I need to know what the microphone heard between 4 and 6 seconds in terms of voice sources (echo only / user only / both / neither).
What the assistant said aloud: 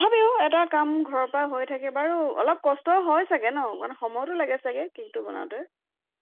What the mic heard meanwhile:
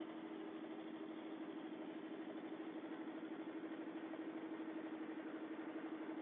neither